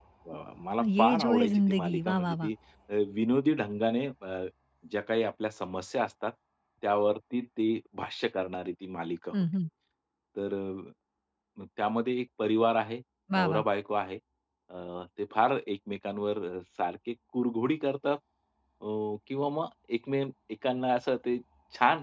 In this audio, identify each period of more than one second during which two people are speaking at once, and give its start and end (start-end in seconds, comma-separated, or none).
0.8-2.5